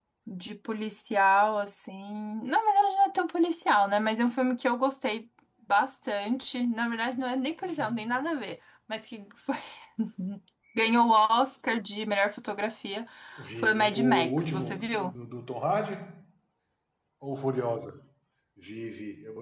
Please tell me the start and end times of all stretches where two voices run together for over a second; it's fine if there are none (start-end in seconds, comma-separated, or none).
13.6-15.1